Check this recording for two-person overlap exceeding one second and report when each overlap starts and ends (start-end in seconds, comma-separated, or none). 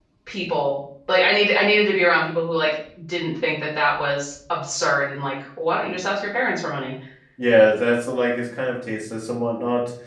none